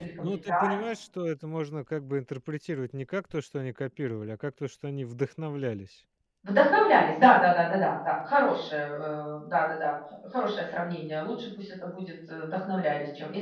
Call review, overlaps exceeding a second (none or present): none